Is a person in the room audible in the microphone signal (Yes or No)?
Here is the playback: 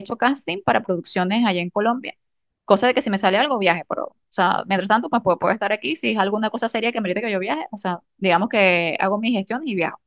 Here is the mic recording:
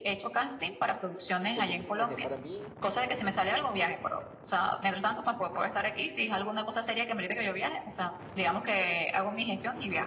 Yes